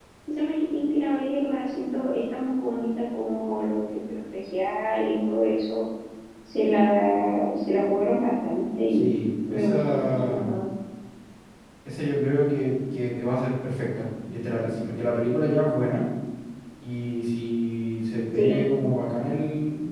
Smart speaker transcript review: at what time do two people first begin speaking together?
8.9 s

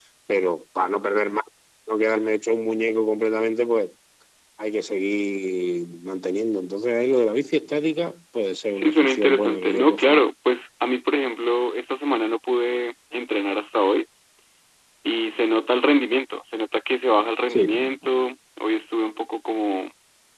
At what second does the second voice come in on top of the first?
8.7 s

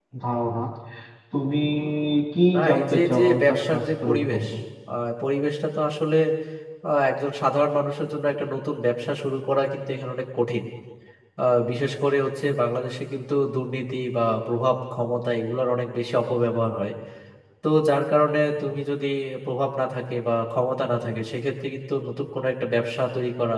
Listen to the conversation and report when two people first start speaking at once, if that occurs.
2.5 s

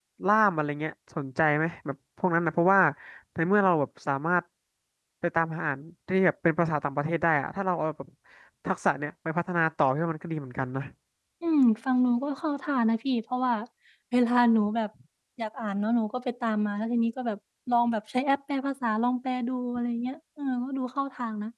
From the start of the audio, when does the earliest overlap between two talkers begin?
none

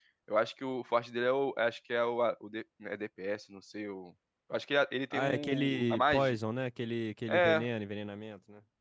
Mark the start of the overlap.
5.1 s

